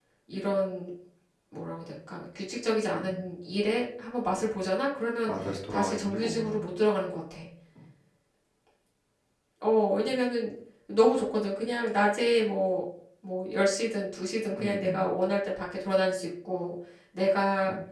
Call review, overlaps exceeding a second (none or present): present